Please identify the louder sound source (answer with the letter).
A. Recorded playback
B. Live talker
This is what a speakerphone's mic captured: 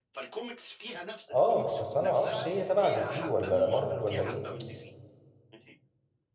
B